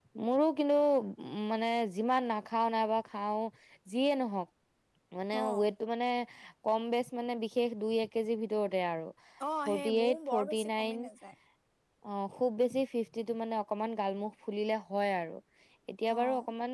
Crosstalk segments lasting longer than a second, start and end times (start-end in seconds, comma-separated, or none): 9.7-10.9